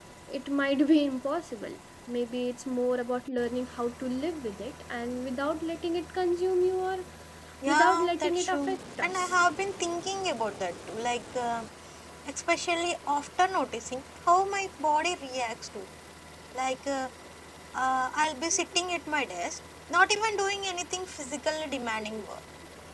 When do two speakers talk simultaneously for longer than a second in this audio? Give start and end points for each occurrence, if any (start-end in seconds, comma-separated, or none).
7.7-9.3